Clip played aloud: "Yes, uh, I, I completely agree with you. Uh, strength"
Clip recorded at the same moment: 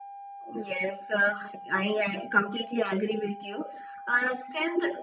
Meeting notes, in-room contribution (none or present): none